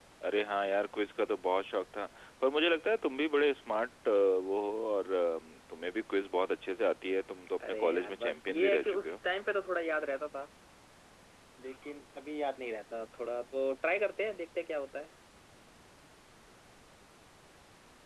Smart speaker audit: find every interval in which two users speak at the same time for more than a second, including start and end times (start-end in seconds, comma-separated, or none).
7.7-9.1